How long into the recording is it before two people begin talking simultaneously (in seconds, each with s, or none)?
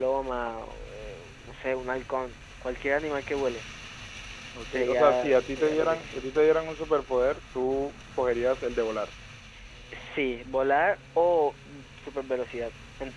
4.7 s